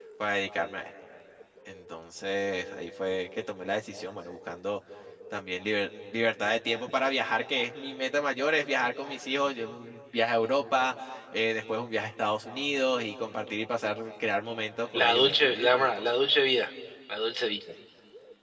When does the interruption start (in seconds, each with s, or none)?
14.9 s